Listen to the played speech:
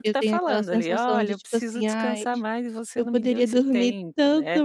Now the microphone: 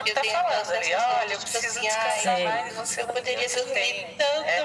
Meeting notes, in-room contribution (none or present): present